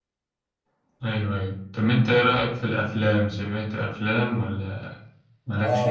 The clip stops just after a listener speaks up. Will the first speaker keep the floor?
No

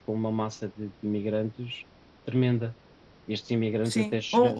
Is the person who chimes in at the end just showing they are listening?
No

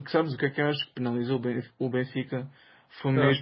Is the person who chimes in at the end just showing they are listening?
Yes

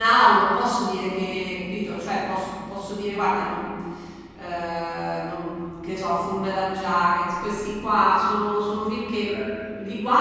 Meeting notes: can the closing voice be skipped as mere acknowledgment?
Yes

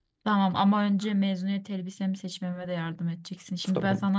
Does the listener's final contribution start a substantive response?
No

